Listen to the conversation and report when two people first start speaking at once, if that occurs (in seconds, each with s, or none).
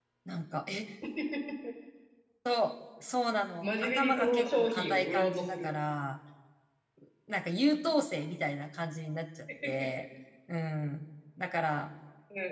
3.6 s